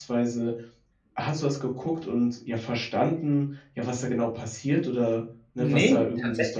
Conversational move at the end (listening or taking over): taking over